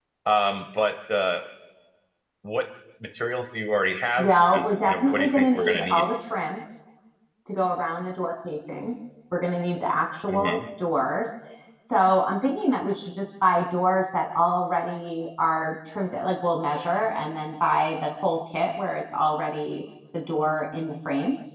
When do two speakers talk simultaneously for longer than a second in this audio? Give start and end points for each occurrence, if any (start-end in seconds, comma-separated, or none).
4.2-6.0